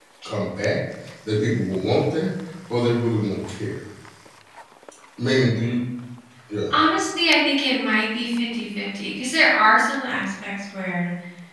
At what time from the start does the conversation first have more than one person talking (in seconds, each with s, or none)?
none